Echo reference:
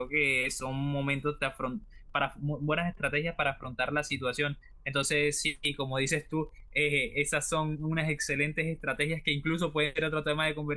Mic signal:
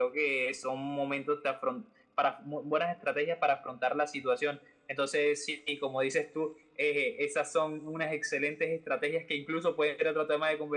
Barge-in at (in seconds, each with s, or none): none